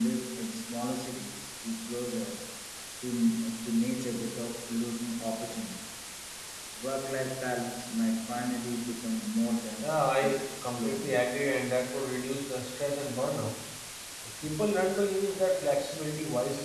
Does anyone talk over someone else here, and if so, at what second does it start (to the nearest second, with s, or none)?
10 s